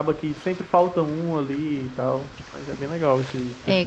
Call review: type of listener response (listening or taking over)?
taking over